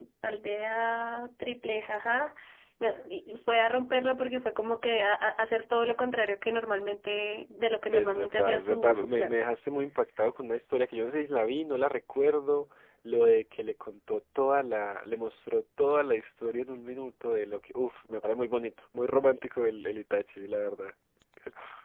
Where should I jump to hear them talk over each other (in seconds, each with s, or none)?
7.9 s